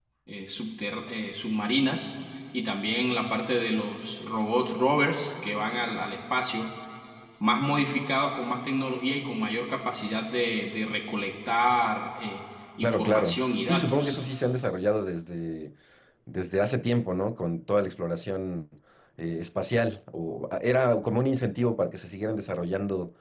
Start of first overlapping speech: 12.8 s

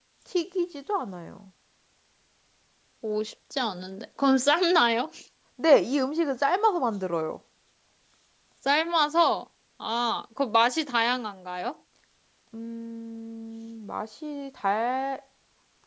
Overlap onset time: none

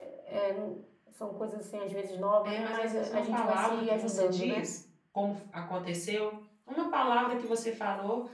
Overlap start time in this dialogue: 2.4 s

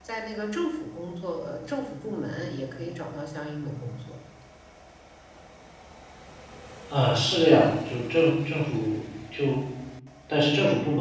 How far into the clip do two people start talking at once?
none

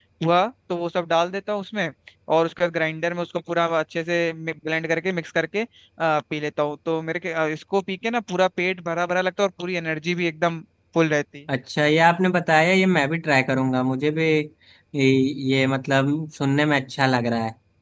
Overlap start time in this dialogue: none

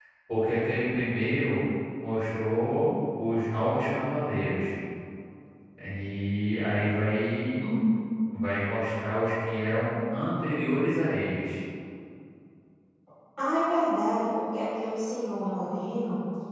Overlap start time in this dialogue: none

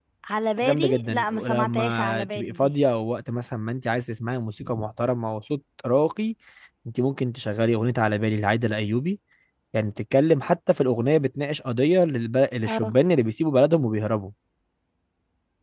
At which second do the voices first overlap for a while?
0.6 s

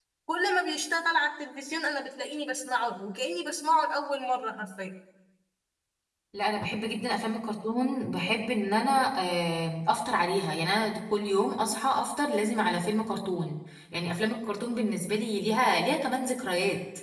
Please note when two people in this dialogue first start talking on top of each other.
none

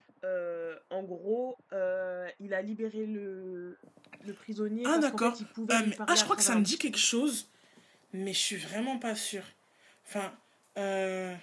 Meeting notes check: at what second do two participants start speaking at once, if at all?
4.8 s

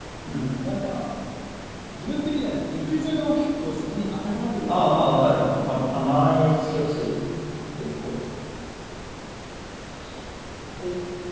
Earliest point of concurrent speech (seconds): 4.7 s

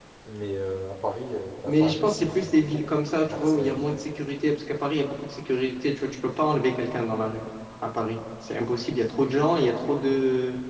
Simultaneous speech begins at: 1.6 s

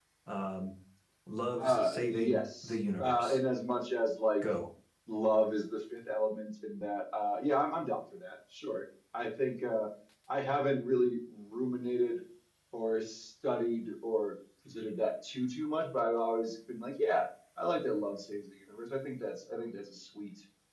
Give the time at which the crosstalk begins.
1.6 s

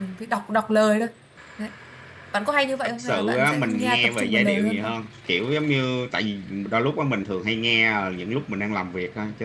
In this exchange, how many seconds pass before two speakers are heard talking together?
3.0 s

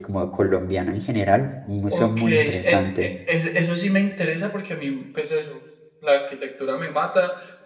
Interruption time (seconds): 1.9 s

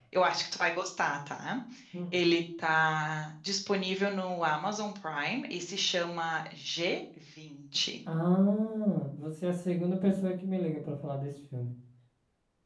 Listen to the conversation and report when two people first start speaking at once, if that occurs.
none

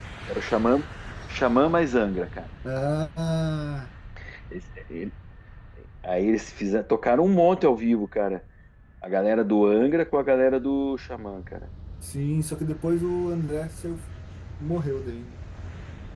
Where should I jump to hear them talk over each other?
none

